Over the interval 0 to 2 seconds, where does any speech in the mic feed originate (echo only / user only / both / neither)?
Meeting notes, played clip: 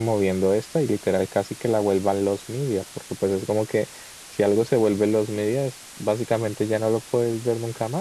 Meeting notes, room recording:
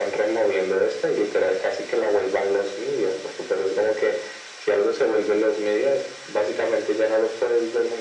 echo only